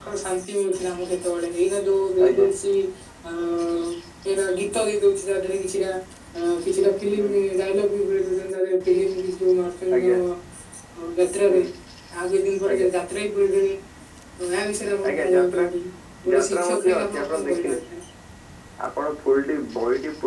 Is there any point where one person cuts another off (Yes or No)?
Yes